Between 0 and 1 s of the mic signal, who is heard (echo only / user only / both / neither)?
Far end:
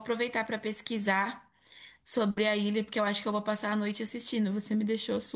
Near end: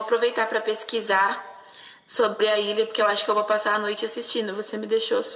echo only